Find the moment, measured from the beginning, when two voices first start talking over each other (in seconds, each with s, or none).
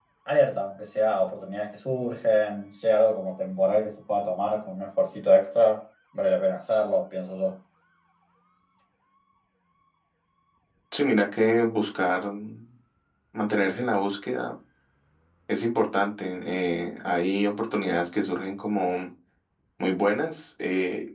none